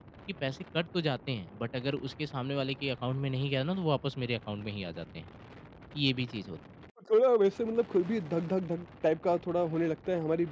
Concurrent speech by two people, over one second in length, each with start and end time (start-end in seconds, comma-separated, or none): none